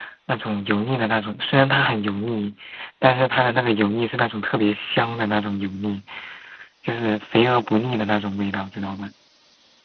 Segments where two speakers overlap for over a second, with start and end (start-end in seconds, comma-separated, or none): none